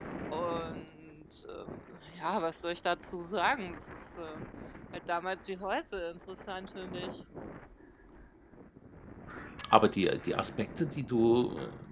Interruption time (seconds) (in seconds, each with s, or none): none